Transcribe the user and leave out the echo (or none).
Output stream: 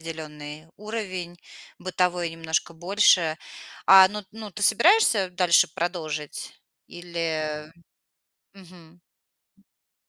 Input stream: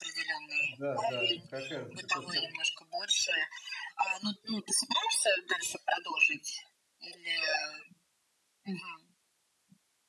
Да да, как этот к как